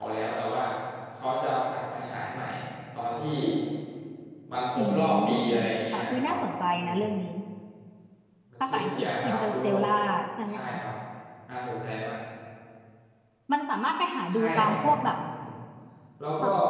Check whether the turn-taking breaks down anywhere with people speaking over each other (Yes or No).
Yes